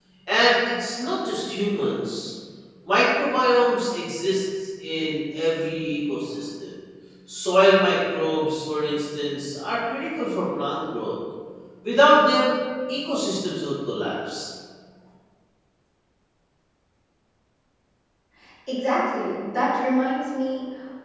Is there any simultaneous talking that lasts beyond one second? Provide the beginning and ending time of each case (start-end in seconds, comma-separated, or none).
none